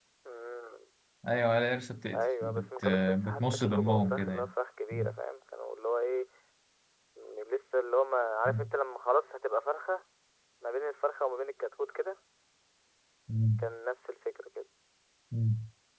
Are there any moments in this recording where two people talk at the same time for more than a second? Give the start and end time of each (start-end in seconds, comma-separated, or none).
2.1-4.5